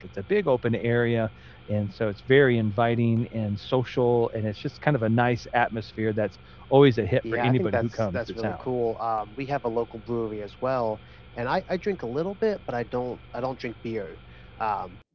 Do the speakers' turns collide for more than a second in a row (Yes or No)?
Yes